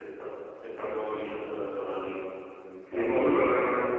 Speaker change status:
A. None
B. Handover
B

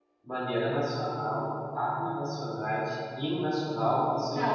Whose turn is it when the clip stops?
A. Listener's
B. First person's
A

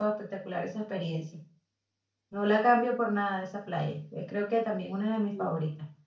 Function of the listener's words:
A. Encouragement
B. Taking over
B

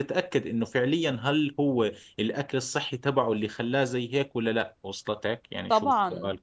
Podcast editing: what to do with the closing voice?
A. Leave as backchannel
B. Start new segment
B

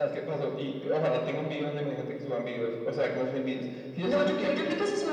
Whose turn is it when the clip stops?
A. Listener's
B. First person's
A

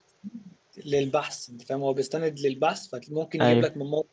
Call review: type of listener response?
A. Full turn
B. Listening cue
B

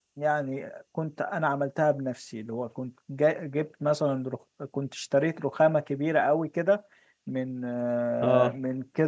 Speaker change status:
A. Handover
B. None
B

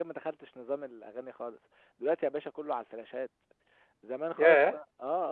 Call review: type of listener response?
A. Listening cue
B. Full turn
A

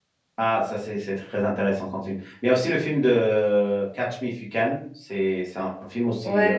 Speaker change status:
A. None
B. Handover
B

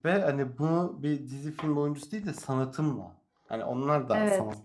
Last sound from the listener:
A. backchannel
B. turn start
A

